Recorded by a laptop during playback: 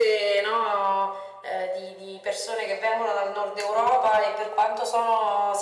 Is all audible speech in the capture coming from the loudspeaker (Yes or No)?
Yes